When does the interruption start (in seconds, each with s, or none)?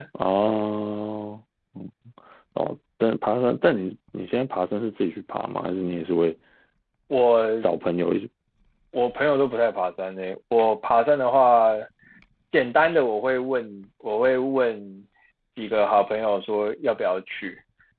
none